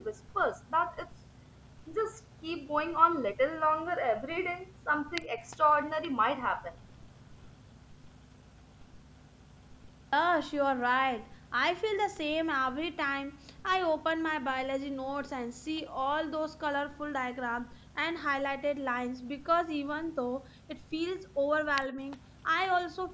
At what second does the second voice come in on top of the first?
none

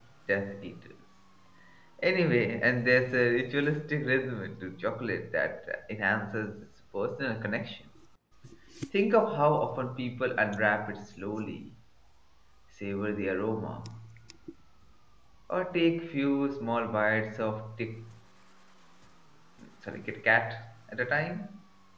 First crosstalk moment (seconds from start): none

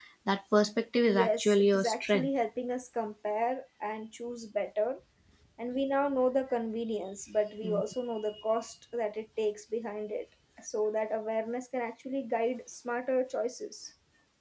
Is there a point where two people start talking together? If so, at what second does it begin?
1.1 s

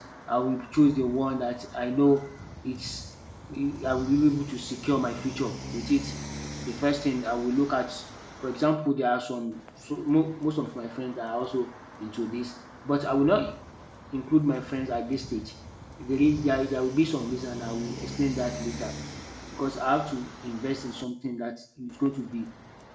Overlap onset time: none

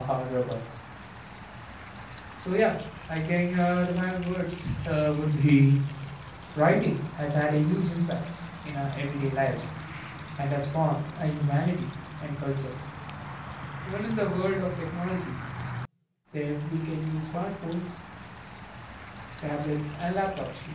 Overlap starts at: none

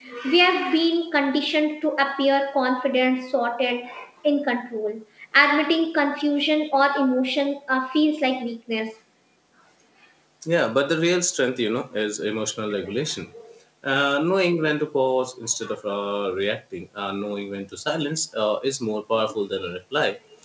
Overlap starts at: none

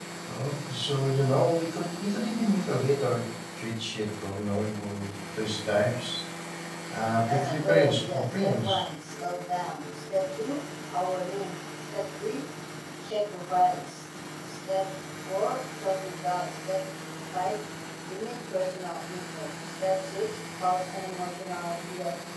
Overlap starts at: 7.2 s

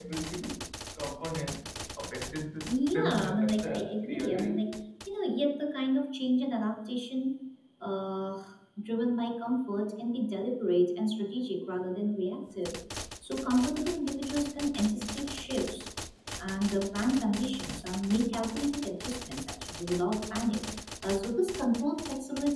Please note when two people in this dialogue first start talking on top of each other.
2.9 s

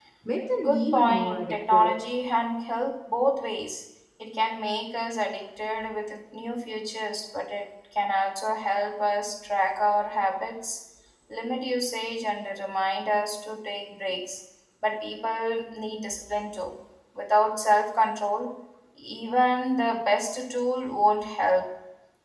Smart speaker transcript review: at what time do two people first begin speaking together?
0.6 s

